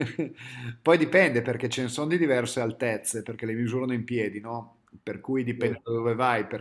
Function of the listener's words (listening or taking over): listening